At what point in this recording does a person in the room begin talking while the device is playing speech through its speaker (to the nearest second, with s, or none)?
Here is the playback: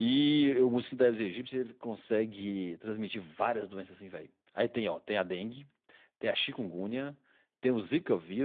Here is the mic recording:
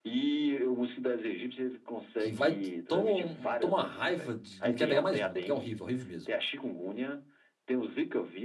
2 s